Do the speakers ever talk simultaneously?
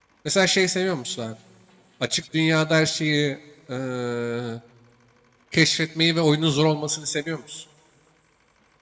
No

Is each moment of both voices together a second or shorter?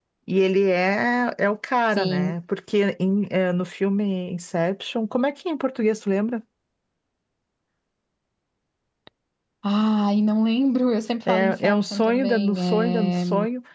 No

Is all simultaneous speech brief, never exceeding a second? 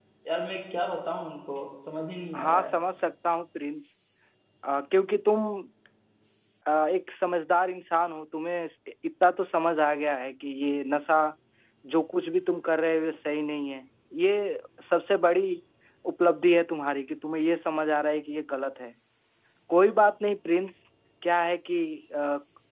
Yes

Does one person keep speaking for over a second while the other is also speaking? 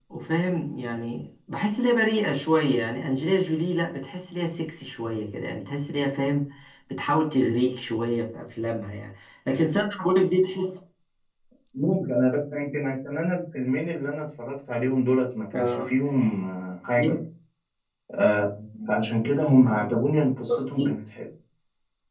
No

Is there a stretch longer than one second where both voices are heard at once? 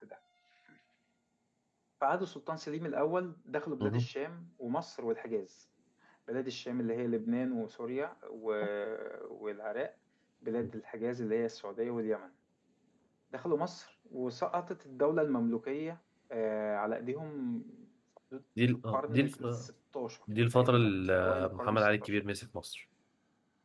Yes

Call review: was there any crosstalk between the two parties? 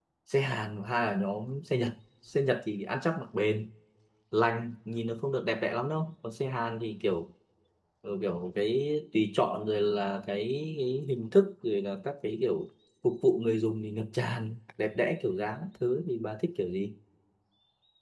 No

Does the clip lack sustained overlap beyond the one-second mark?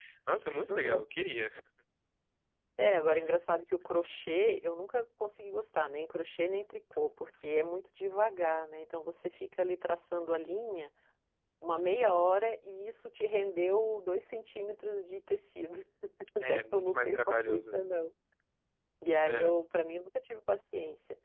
No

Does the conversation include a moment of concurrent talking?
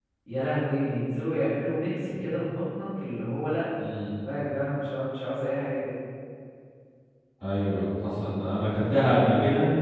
No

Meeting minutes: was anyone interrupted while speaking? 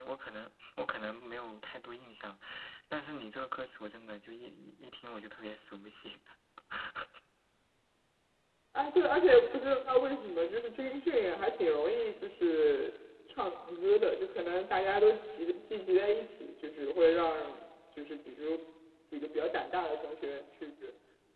No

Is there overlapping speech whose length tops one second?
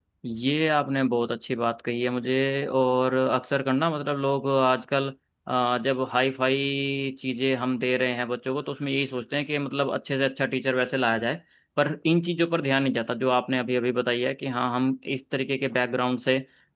No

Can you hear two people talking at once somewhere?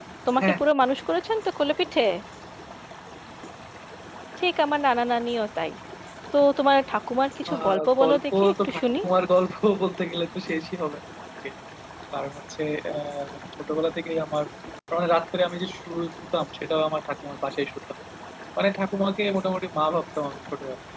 Yes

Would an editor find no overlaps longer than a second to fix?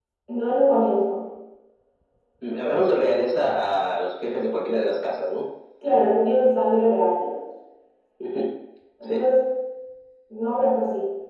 Yes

